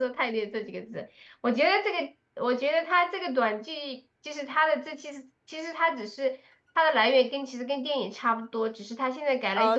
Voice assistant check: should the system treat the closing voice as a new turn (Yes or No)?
Yes